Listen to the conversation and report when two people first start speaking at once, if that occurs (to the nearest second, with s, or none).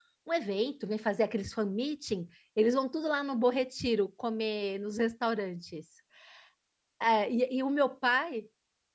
none